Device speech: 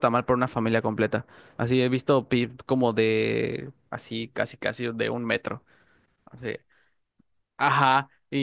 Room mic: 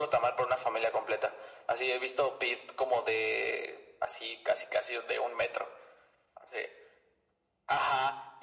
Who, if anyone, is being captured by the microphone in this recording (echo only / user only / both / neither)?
echo only